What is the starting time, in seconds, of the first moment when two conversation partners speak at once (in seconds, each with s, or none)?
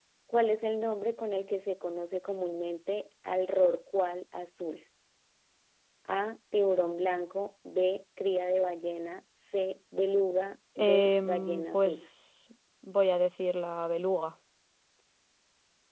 10.8 s